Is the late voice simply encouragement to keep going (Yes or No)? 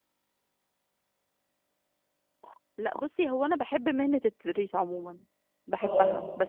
Yes